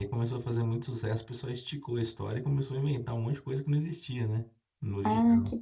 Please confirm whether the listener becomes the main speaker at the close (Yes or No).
Yes